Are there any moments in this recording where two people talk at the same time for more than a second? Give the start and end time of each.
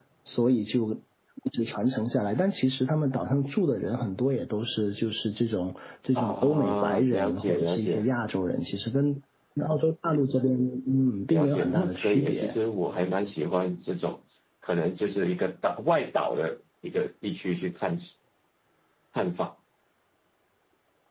6.1-8.1, 11.3-12.5

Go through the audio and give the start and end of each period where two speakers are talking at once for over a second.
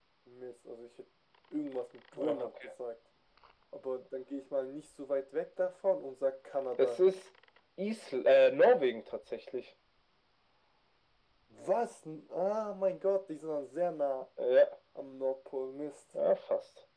none

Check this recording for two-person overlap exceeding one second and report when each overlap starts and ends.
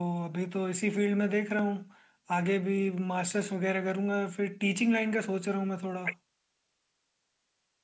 none

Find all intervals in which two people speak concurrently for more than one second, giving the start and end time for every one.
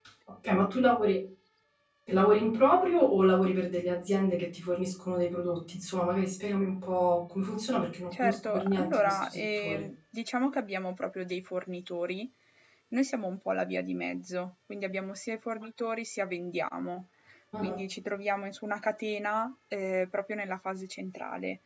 8.1-9.8

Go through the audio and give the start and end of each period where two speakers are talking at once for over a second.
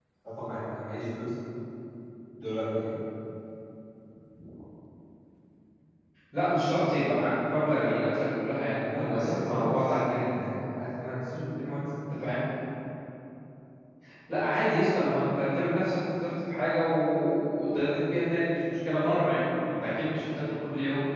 8.8-10.6

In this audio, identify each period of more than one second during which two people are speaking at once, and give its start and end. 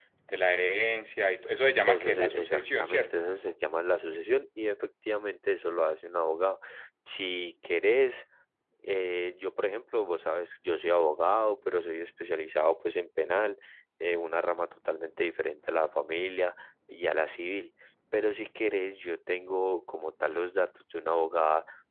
1.9-3.2

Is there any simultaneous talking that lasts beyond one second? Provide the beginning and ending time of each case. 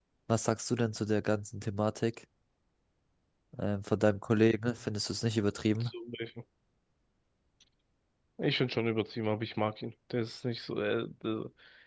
none

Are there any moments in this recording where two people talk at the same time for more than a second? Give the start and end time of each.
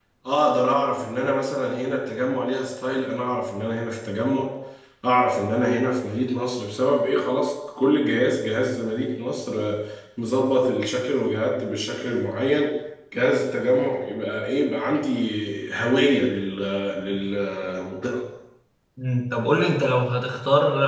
none

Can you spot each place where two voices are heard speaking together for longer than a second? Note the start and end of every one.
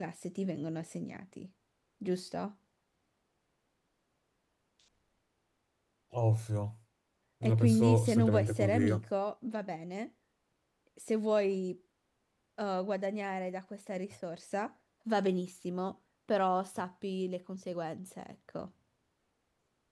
7.4-9.0

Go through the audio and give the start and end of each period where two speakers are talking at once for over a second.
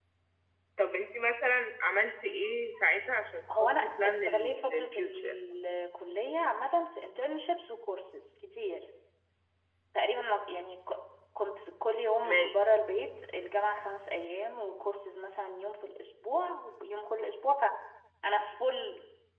3.6-5.3

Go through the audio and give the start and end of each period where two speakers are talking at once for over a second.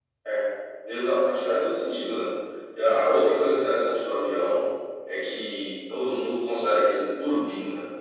none

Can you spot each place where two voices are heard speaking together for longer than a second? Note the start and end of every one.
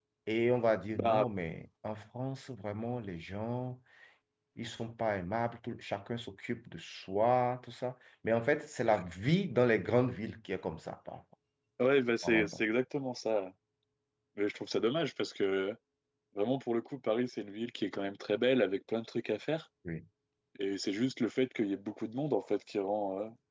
none

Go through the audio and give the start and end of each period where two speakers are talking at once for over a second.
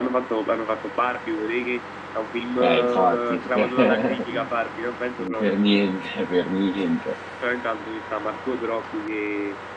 2.6-4.5

